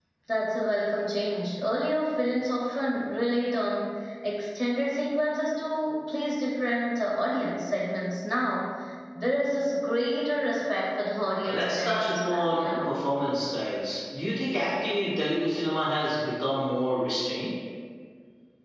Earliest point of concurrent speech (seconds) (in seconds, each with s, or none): 11.4 s